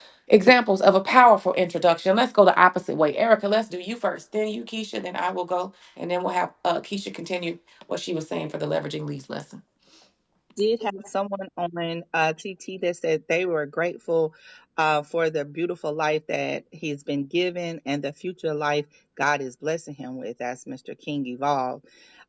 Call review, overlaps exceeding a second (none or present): none